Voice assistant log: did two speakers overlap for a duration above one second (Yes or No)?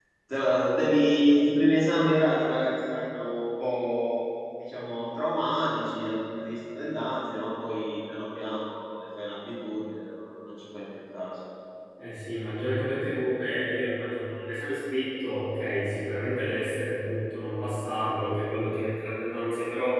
No